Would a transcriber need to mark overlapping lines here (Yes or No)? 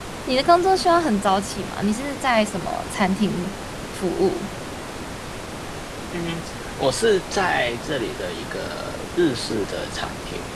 No